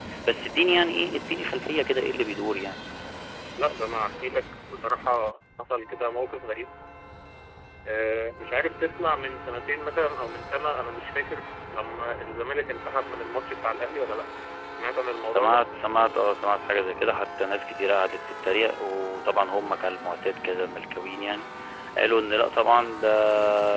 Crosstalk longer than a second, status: none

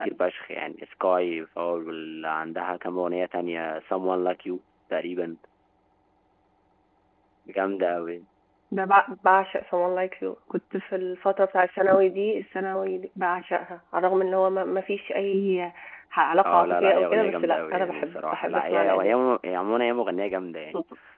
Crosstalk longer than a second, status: present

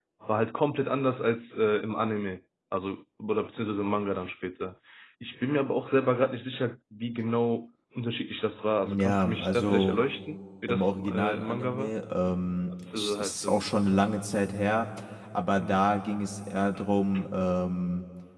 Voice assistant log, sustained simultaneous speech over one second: present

